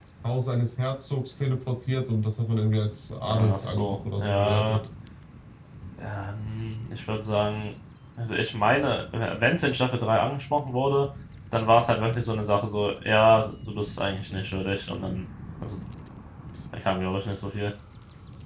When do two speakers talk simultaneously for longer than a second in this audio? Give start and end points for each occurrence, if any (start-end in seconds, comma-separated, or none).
3.3-4.8